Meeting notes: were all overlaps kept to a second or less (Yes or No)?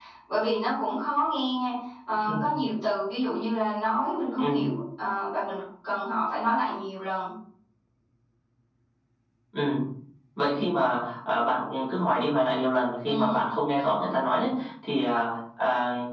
Yes